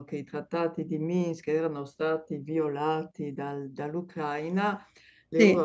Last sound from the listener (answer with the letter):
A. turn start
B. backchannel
B